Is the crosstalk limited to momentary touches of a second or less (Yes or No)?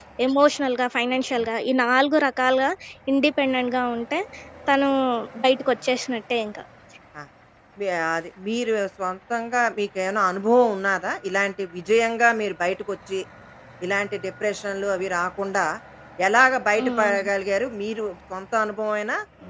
Yes